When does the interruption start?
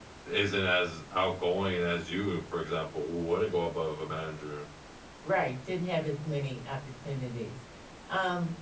none

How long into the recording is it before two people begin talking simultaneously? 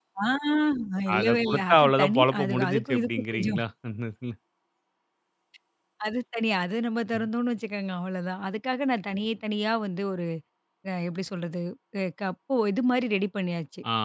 1.2 s

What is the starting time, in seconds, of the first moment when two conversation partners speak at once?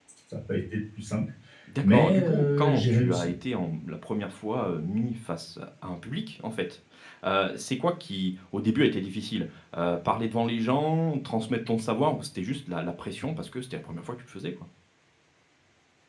1.8 s

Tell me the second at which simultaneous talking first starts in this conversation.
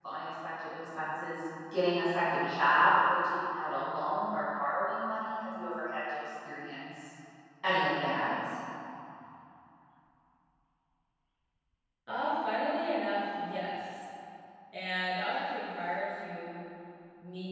none

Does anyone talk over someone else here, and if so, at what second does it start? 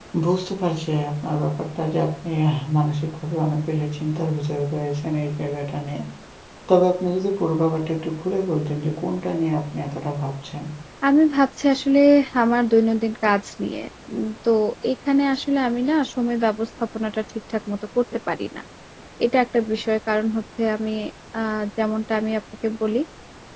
none

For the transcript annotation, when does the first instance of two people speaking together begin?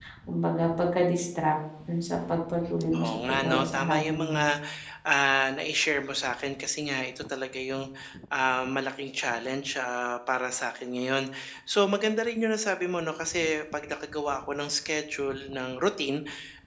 2.9 s

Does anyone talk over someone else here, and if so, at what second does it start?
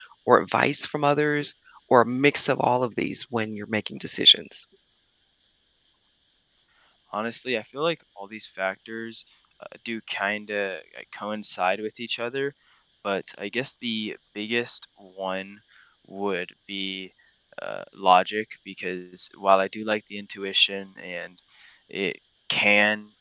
none

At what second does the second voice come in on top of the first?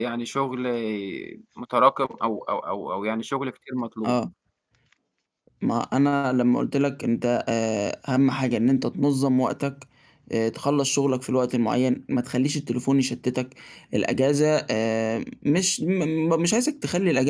none

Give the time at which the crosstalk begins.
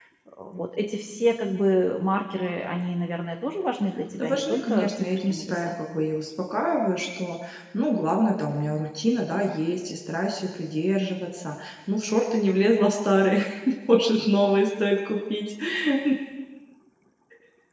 4.2 s

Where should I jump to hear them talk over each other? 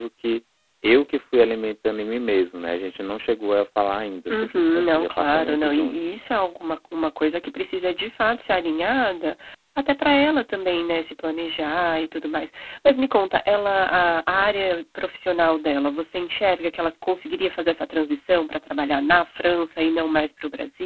4.3 s

